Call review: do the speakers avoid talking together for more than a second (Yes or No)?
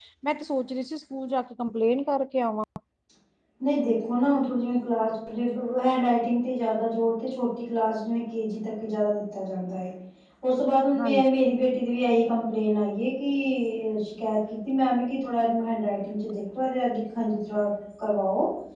Yes